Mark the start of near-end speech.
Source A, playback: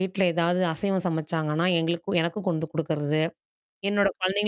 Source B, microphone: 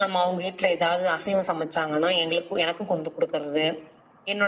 none

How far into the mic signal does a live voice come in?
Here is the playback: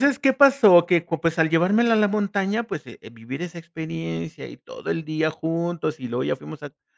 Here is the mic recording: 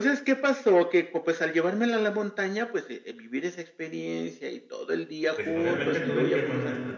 5.4 s

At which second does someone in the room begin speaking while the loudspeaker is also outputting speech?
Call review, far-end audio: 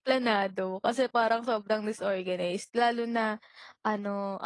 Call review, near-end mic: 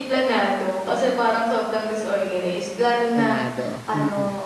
3.1 s

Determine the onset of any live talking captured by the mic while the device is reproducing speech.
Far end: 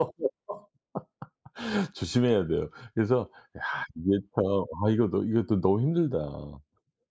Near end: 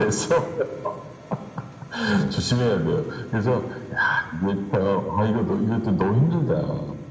2.1 s

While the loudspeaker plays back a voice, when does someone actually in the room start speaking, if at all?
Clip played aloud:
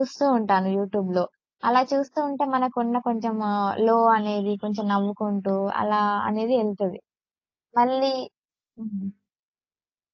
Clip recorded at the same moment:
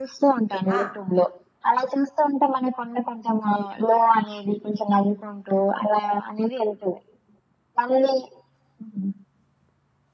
0.7 s

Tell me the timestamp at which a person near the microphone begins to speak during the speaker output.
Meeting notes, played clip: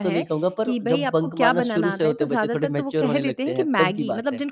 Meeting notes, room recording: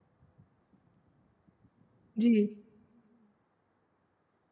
2.2 s

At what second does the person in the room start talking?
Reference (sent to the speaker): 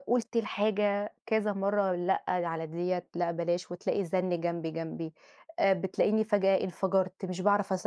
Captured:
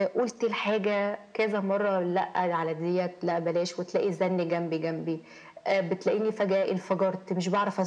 none

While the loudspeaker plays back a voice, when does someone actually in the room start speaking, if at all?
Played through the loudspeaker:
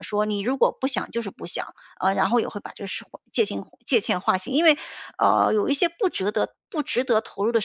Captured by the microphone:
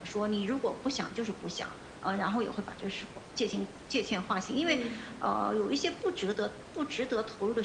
4.6 s

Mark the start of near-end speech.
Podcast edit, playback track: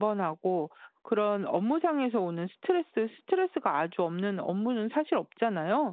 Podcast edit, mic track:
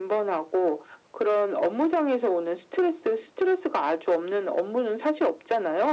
none

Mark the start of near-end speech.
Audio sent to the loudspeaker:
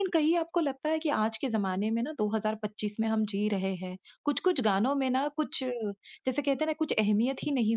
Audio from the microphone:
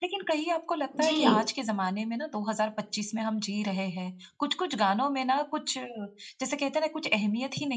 0.9 s

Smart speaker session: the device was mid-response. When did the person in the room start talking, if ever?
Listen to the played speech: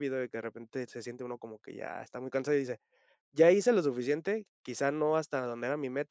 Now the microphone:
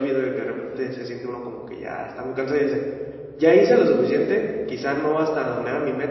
none

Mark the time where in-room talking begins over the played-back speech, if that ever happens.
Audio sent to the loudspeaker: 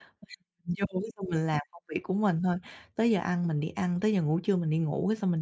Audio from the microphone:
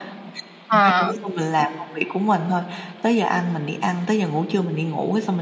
0.7 s

